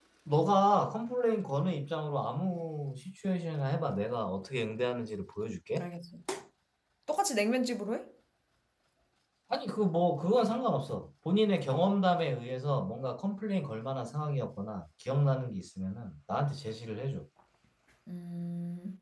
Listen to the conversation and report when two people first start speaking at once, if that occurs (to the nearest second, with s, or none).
none